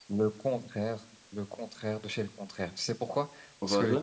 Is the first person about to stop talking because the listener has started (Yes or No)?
No